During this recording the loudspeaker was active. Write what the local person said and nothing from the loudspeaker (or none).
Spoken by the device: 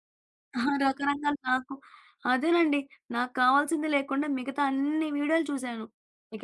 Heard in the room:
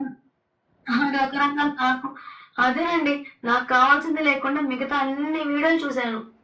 none